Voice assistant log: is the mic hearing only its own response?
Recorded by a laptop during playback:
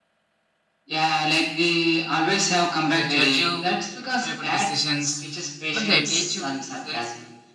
No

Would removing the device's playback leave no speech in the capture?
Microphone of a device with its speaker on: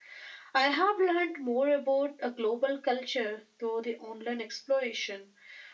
Yes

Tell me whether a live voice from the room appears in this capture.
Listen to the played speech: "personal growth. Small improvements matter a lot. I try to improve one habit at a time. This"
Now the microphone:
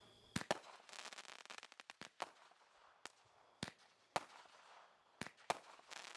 No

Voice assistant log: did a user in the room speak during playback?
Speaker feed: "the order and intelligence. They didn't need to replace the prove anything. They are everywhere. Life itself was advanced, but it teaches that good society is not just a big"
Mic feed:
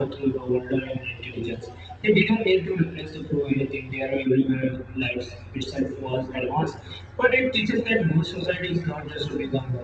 No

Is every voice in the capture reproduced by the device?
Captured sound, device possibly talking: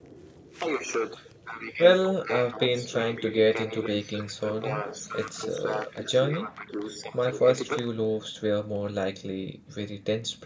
No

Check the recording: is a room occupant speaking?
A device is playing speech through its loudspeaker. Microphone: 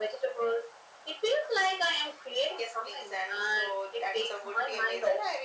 No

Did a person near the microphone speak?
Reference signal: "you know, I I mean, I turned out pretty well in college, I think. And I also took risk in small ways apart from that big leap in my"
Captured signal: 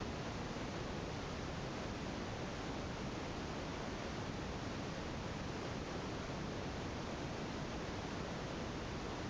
No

